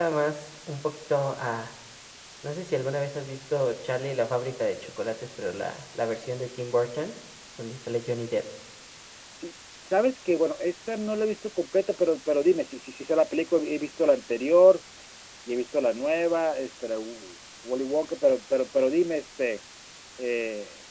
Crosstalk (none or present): none